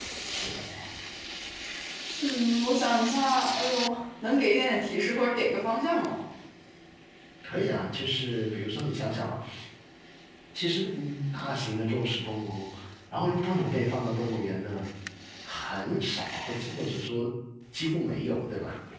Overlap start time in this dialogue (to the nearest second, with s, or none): none